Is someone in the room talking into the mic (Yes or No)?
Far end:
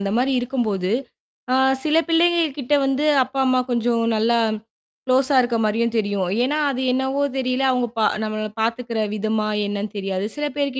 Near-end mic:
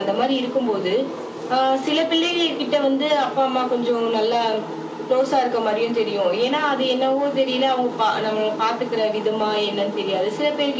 No